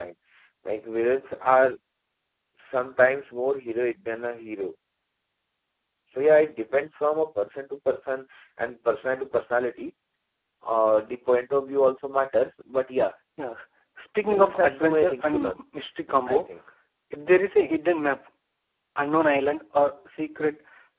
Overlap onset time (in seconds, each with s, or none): 14.2 s